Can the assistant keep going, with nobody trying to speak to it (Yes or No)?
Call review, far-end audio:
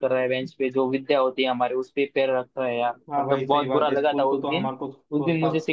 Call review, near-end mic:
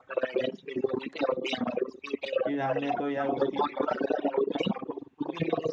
No